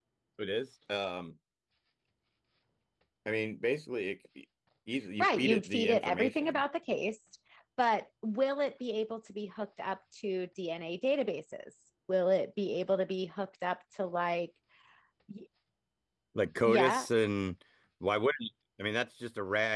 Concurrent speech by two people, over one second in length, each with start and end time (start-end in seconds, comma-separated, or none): 5.2-6.6